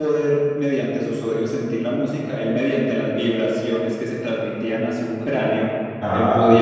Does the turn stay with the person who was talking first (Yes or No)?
Yes